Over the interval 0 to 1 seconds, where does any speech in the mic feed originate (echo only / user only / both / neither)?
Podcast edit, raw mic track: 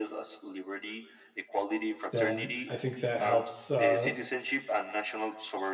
echo only